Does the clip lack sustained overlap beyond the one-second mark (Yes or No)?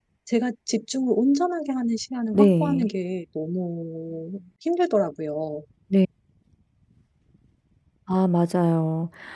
Yes